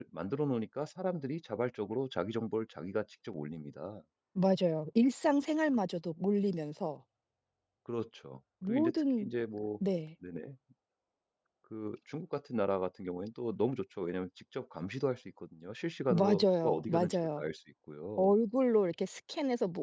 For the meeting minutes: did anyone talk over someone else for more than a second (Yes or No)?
Yes